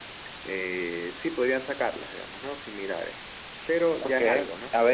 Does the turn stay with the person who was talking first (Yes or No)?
No